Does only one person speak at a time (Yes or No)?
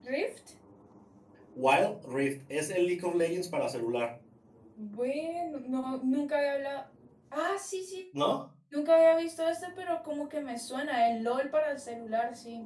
Yes